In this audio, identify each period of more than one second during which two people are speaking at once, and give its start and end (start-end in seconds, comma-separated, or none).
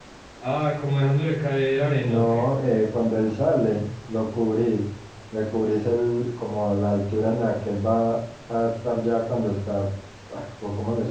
none